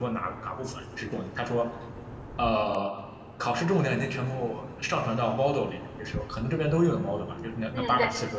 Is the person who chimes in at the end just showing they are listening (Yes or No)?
Yes